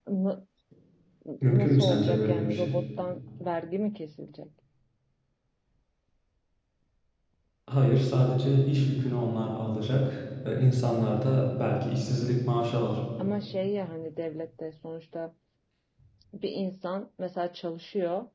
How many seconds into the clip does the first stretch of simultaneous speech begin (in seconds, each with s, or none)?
1.5 s